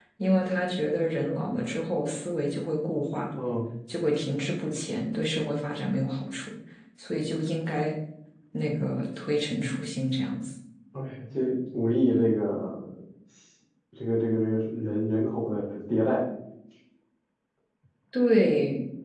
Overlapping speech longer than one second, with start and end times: none

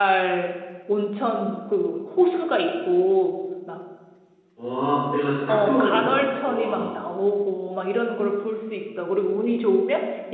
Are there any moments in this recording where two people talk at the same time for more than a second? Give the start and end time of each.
5.5-6.8

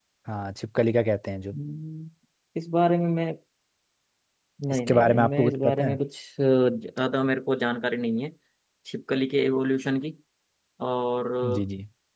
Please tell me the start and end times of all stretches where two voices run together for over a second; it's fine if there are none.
4.7-5.9

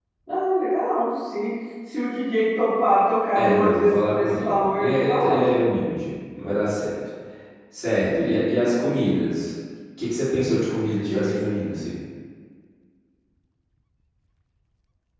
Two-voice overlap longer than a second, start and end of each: 3.4-5.6

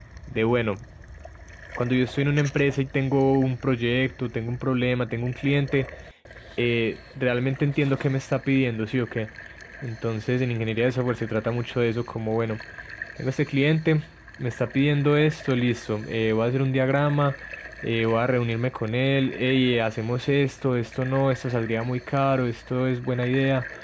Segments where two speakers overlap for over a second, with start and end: none

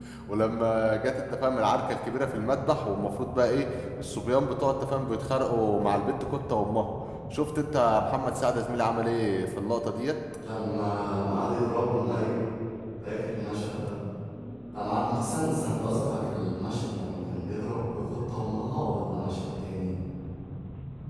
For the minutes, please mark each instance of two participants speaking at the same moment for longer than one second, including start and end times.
none

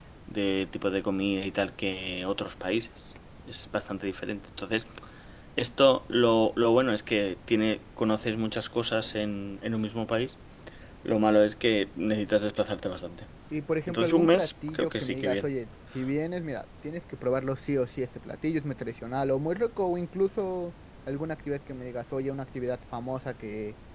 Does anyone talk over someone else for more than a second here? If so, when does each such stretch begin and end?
13.9-15.5

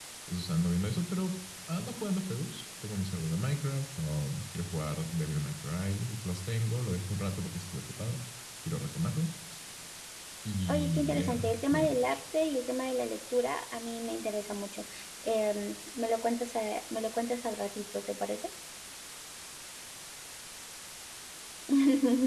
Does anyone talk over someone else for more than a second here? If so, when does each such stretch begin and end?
10.7-12.2

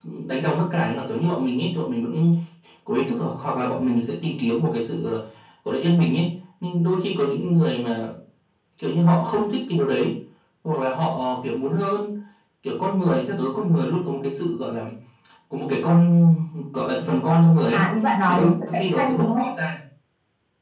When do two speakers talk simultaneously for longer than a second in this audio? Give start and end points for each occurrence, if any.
18.3-19.5

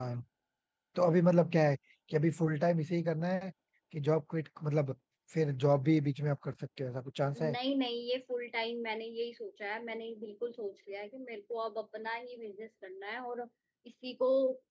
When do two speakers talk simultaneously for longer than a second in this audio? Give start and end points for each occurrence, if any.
none

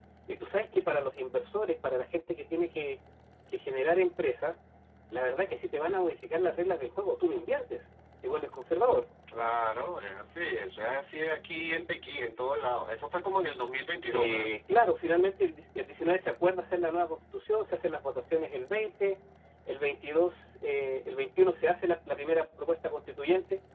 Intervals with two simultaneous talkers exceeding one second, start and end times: none

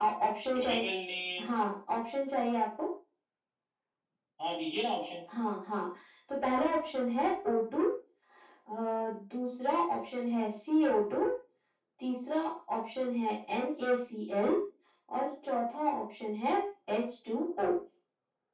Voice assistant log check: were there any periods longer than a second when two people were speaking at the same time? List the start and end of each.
none

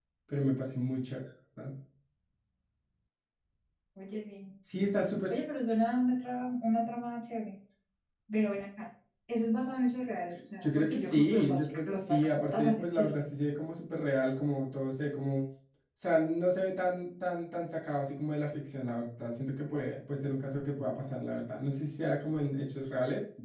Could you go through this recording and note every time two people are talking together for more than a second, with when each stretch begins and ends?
10.6-13.3

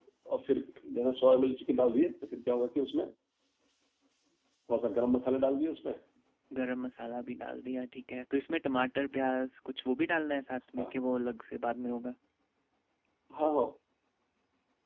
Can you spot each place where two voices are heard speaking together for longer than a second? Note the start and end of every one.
none

